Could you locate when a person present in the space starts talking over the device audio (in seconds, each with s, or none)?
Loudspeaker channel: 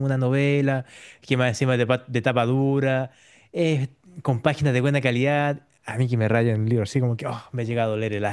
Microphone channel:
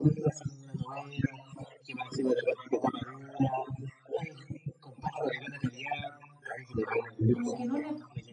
7.3 s